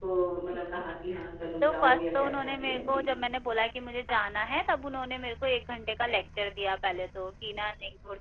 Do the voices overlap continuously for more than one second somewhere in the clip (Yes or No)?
Yes